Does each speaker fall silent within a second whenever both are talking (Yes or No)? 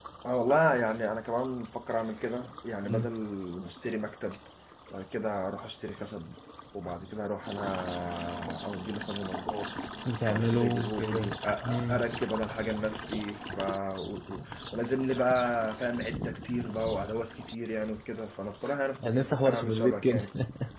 No